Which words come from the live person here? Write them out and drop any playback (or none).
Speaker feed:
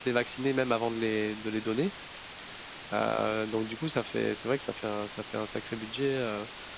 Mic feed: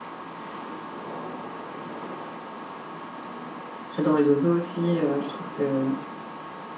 j'adore les oiseaux aussi, euh, je trouve que